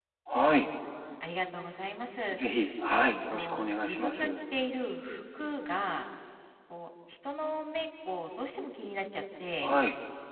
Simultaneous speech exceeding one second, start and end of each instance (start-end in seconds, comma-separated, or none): 3.0-4.3